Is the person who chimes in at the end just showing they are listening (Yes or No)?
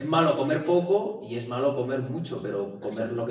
Yes